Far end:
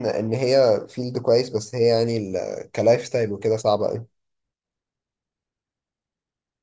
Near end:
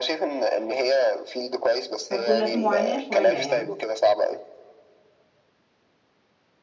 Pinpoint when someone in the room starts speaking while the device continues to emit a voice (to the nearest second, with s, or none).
2 s